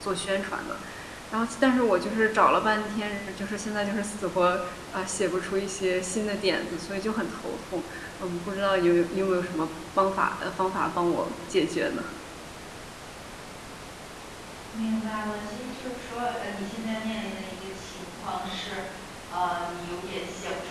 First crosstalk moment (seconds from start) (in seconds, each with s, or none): none